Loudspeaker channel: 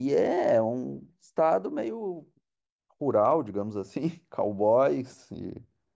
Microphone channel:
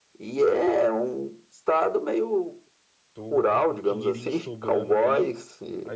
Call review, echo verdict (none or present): present